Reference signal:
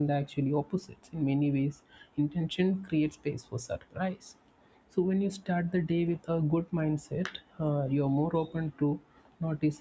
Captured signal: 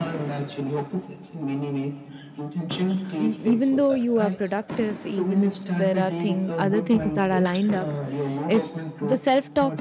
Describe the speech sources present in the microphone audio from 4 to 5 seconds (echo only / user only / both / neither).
both